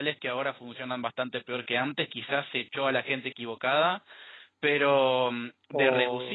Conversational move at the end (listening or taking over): listening